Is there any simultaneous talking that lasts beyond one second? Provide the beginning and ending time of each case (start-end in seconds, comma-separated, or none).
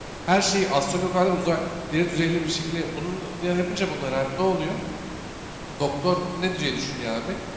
none